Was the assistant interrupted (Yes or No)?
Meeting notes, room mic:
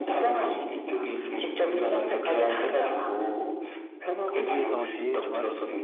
Yes